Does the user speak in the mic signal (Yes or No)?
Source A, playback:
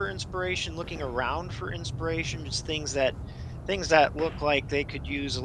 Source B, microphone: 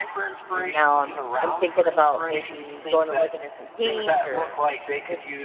Yes